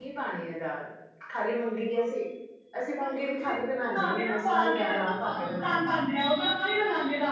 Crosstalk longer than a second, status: present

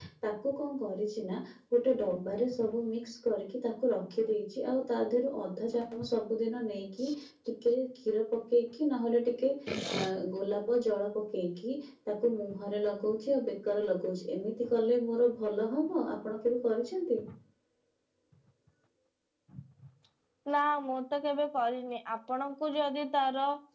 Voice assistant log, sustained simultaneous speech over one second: none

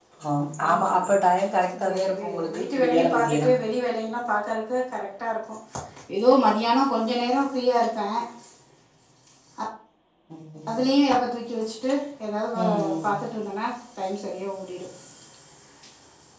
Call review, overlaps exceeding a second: present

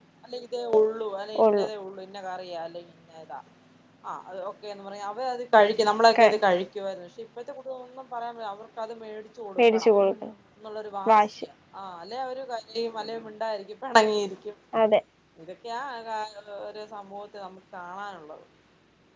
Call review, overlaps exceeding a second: none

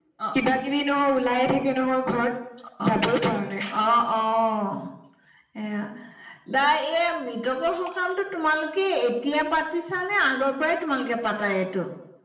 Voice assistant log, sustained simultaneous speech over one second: none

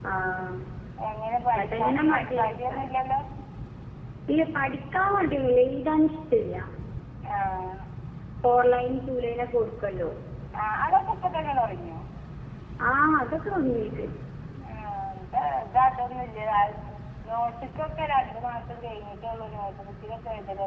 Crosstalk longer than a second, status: present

